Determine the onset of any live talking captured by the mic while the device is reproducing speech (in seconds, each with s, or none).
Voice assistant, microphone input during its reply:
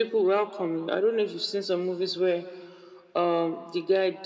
none